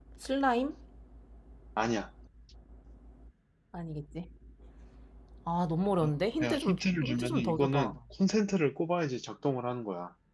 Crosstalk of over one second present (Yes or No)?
Yes